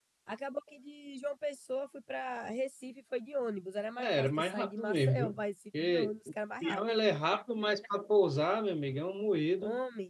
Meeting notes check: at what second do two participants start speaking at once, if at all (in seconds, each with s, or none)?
4.0 s